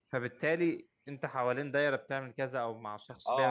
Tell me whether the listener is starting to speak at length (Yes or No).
Yes